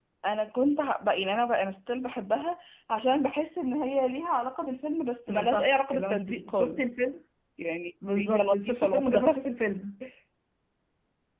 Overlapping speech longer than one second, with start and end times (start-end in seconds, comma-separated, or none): 5.5-6.8, 8.2-9.4